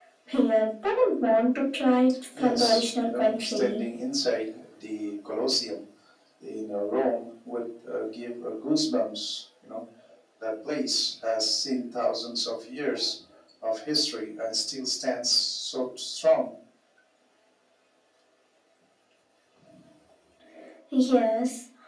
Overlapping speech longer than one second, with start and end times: 2.4-3.9

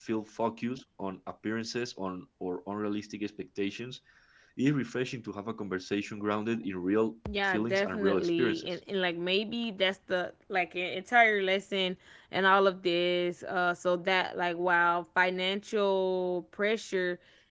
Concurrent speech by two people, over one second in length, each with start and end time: 7.5-8.7

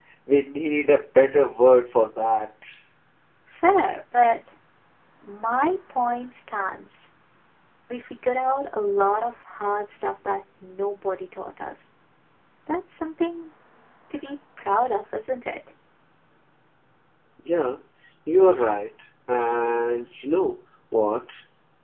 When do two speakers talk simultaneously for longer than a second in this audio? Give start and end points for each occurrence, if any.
none

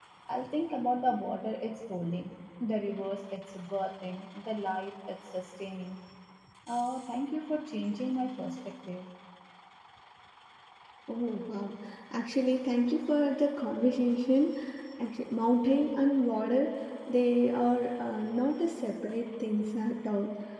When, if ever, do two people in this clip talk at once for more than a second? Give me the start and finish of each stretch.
none

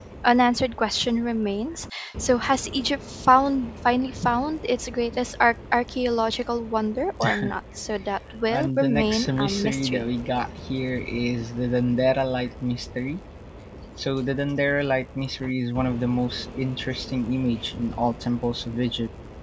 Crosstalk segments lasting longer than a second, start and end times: 8.5-10.1

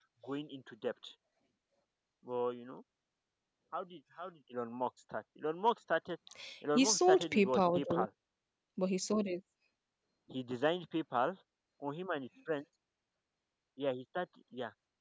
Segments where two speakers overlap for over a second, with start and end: 6.8-8.0

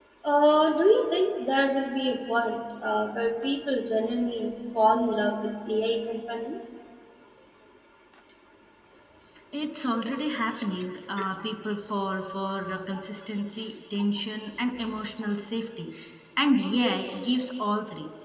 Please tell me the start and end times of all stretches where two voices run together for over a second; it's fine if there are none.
none

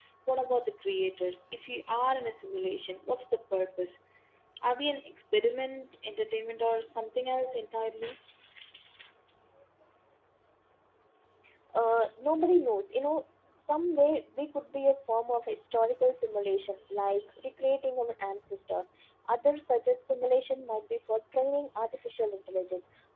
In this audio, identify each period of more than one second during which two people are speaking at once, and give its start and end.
none

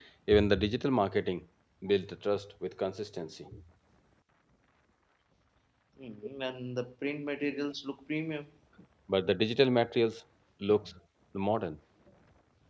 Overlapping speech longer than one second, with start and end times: none

